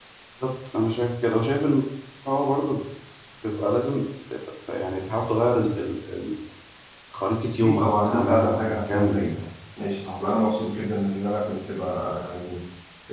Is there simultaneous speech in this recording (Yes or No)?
Yes